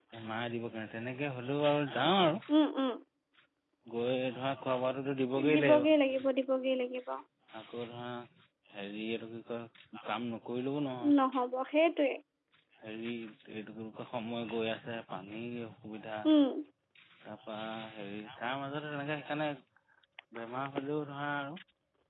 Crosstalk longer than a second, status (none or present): none